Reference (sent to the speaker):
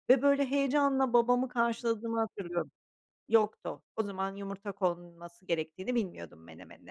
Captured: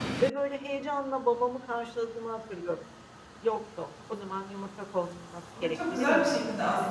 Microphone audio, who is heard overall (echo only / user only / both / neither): both